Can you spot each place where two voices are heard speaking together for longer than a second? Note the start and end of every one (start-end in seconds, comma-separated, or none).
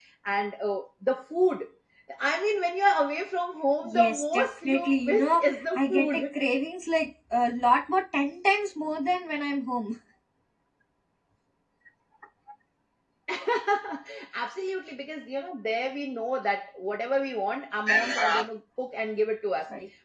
3.8-6.4